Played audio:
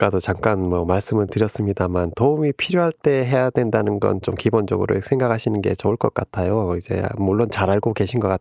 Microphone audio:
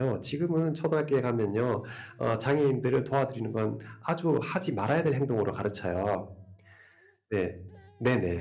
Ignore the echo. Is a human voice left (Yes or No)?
Yes